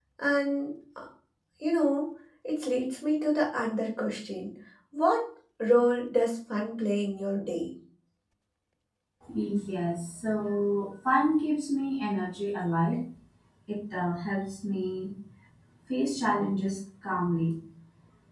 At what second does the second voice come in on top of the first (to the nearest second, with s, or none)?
none